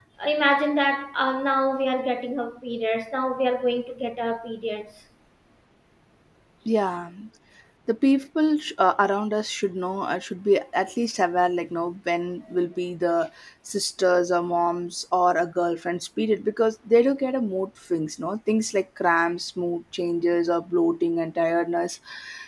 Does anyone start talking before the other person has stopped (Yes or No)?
No